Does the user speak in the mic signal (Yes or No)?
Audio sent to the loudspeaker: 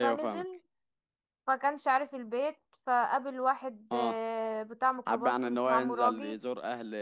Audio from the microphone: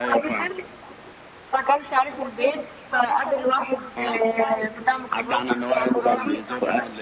Yes